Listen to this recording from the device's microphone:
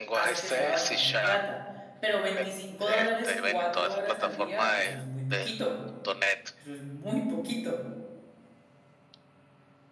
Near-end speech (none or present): present